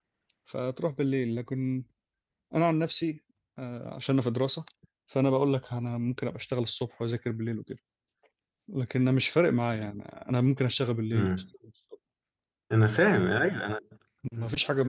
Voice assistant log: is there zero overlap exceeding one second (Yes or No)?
Yes